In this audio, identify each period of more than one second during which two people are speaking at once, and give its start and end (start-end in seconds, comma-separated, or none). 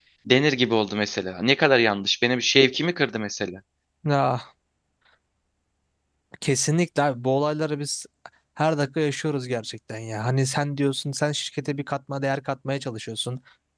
none